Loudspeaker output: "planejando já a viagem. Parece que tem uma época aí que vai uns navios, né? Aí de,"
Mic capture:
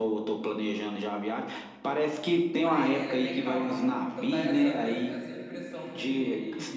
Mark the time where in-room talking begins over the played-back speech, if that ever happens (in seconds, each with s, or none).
2.5 s